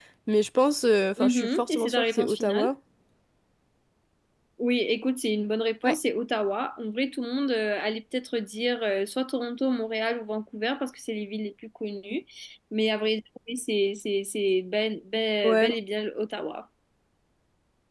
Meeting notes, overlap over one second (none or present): present